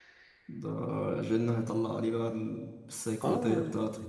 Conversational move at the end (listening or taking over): taking over